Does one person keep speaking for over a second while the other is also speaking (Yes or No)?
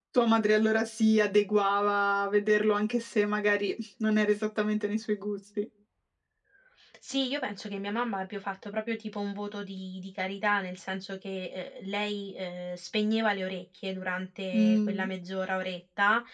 No